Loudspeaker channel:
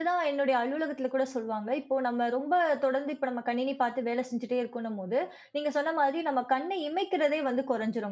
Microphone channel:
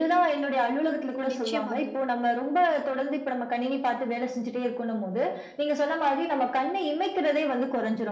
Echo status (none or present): present